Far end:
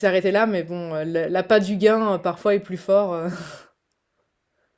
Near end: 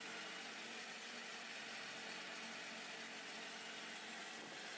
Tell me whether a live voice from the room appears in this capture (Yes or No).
No